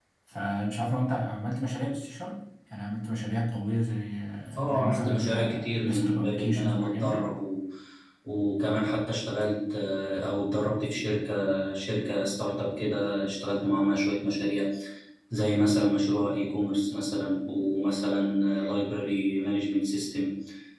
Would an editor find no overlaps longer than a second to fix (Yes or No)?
No